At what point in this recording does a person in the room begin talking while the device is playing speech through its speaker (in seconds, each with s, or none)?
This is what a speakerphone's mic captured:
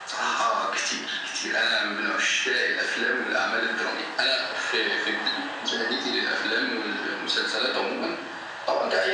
none